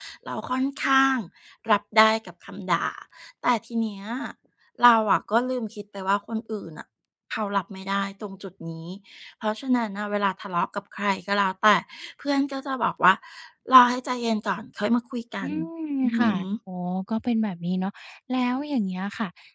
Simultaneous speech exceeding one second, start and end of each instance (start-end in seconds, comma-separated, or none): none